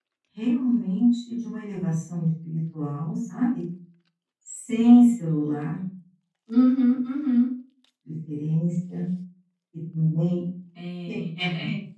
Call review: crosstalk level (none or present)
none